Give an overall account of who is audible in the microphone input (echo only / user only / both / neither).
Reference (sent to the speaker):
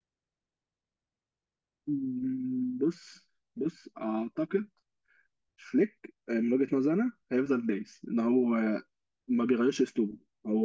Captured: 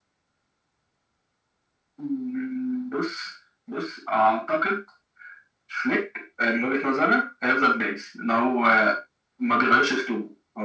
echo only